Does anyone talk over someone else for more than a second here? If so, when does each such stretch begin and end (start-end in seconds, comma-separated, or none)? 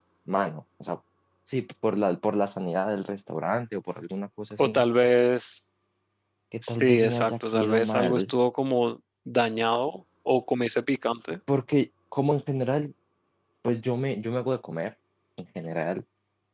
6.6-8.1